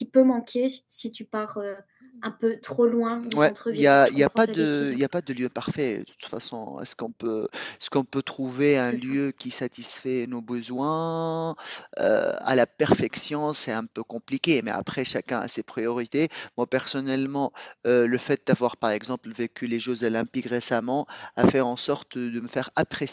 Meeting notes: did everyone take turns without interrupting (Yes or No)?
No